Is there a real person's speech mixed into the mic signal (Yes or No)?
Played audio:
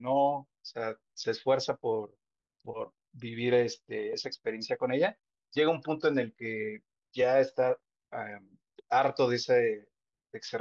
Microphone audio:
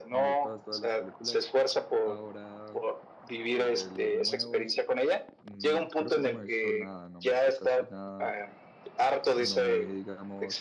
Yes